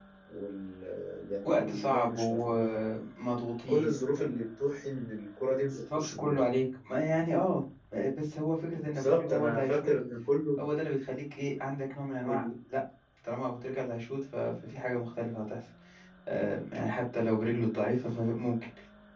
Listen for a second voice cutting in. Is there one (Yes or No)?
Yes